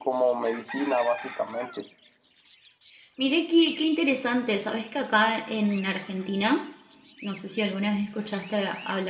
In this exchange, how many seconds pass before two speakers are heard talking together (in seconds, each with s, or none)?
none